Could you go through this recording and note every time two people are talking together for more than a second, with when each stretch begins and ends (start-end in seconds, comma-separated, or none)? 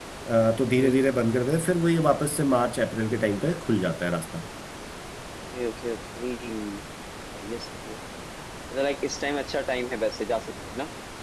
none